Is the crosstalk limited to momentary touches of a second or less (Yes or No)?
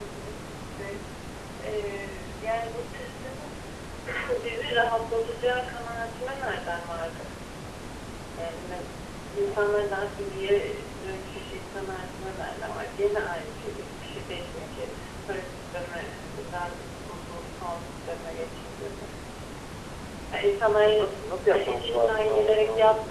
No